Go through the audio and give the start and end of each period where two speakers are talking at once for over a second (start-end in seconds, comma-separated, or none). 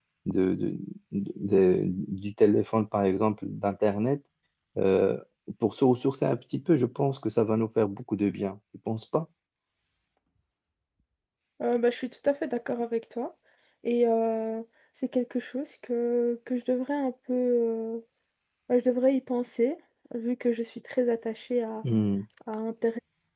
none